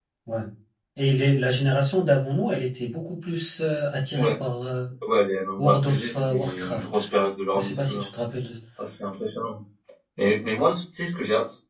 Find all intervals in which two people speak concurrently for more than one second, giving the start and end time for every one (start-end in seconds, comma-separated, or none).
5.6-7.0